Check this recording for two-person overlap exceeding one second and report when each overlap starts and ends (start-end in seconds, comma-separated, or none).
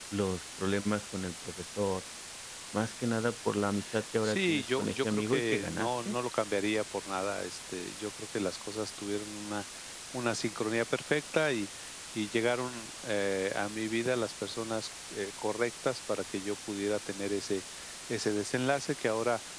4.2-6.1